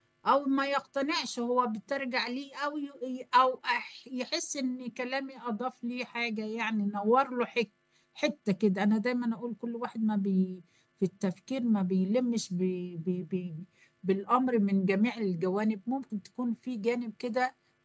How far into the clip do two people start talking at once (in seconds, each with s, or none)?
none